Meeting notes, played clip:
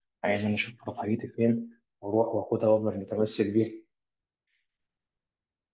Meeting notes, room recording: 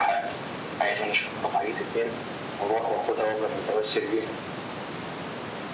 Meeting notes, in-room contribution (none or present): none